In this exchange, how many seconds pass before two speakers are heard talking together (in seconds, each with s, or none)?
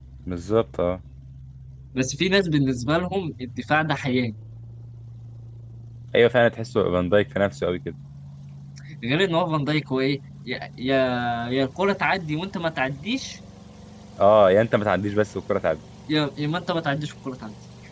none